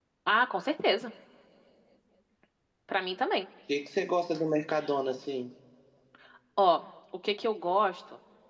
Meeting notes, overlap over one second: none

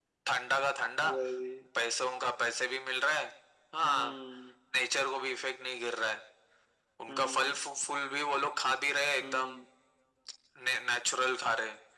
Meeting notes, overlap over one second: none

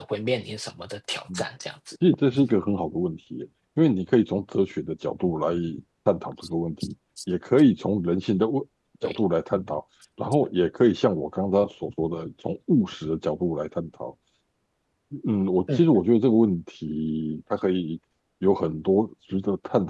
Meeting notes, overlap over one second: none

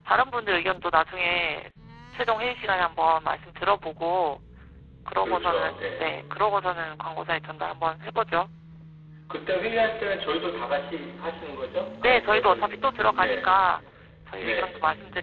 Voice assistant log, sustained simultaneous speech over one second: present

